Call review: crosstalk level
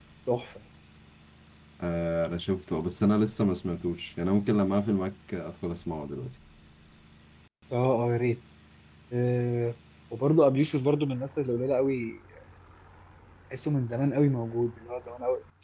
none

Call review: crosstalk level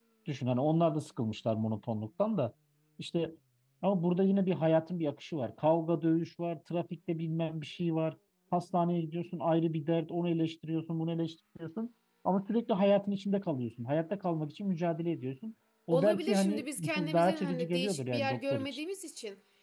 present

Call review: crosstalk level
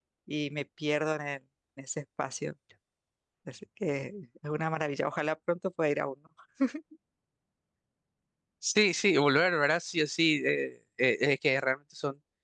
none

